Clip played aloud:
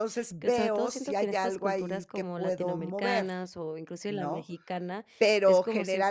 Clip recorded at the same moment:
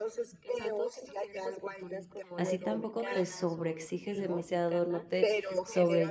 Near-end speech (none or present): present